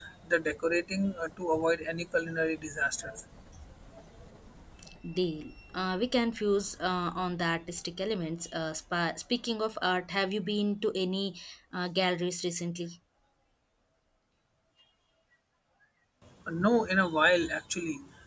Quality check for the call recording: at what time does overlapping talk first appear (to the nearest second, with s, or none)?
none